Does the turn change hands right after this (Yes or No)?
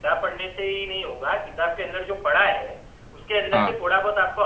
No